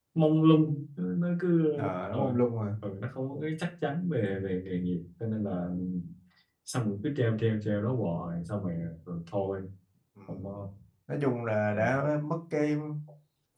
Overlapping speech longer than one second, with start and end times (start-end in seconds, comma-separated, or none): none